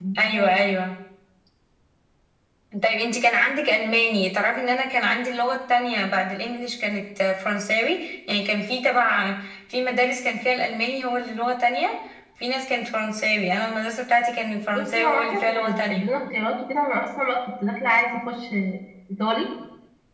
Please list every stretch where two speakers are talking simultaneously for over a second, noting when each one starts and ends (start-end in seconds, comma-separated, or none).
14.7-16.1